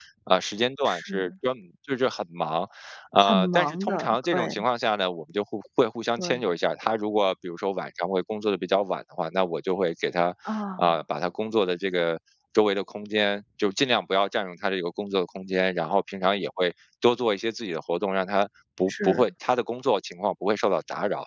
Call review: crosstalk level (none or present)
present